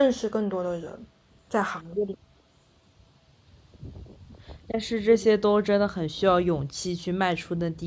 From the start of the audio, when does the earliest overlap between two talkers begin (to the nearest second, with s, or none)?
none